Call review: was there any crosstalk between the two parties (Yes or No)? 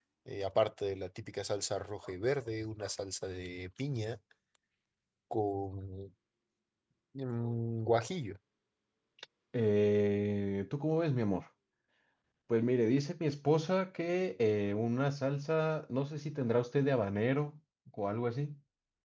No